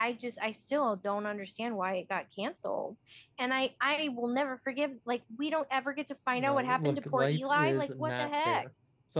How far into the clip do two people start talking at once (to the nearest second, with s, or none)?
6 s